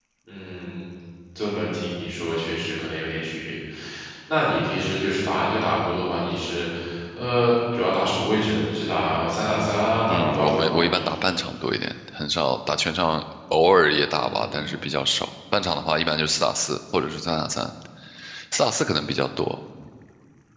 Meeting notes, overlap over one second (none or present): present